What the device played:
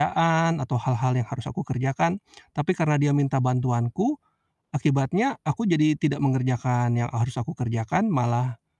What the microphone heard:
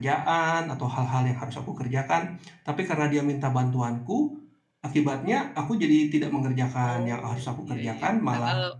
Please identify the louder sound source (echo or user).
echo